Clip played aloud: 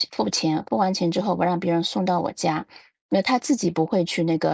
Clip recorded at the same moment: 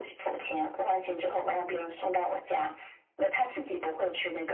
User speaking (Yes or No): No